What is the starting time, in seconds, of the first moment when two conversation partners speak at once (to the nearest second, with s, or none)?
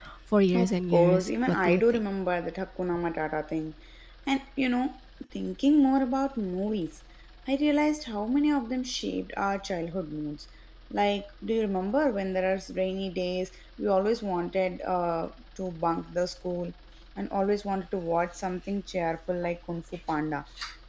1 s